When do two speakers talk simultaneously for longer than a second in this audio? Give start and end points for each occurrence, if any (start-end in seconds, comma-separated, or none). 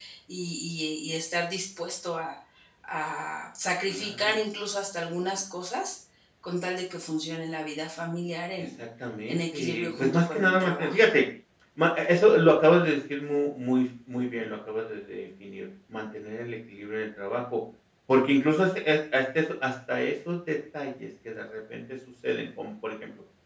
9.3-11.0